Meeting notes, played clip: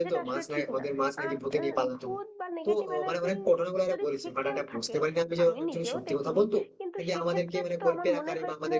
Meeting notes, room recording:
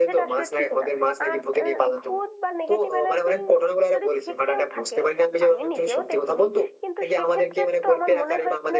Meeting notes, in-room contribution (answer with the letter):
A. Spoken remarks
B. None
B